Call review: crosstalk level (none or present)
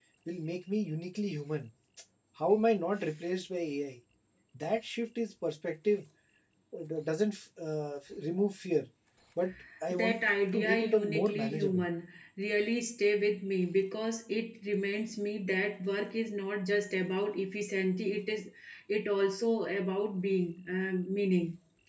present